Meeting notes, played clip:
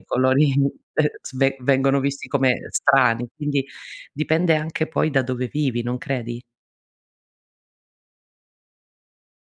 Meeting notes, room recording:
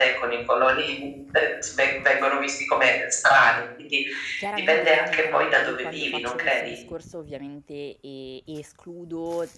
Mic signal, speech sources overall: both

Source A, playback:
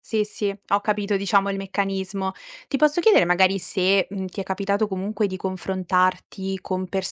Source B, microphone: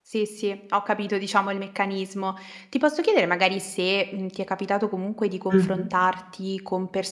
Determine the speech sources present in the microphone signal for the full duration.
both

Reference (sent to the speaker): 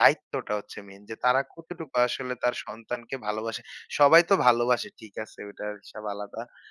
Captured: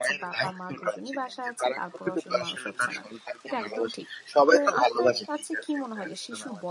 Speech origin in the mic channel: both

